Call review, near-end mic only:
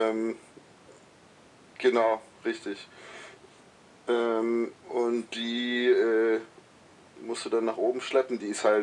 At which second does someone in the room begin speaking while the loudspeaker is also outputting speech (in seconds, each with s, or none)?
none